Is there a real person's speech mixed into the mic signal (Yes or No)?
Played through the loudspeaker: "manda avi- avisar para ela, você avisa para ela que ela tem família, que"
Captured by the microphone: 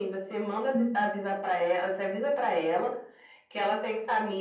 Yes